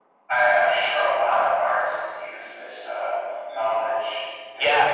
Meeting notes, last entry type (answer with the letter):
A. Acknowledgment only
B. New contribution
B